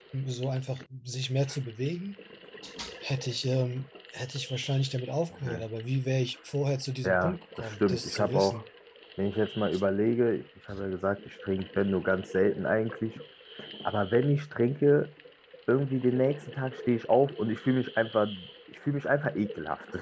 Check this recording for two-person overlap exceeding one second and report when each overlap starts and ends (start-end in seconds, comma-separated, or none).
7.0-8.6